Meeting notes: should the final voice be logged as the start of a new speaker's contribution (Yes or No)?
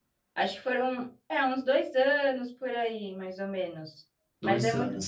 No